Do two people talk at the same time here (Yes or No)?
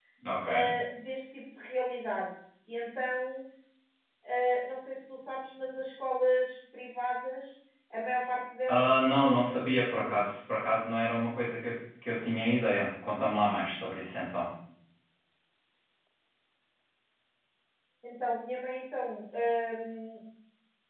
Yes